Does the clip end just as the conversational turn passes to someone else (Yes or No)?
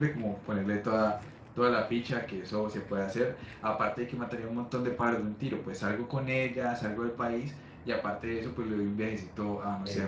No